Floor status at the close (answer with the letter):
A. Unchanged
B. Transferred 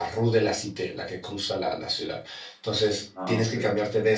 A